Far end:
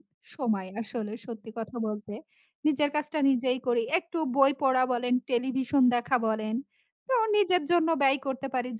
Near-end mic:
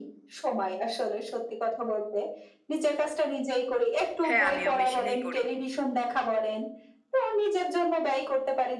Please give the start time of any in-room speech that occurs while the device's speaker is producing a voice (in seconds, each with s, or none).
4.3 s